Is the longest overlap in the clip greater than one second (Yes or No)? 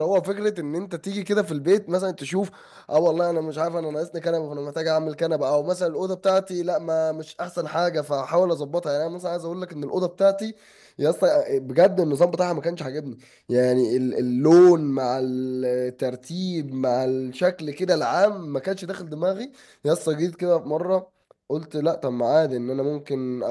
No